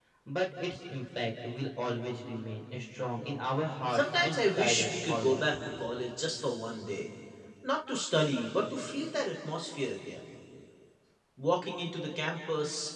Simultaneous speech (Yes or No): Yes